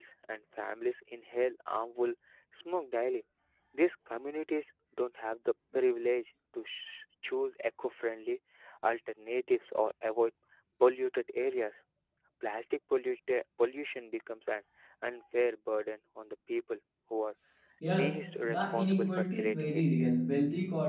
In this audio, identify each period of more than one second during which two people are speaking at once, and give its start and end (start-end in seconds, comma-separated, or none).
17.9-19.8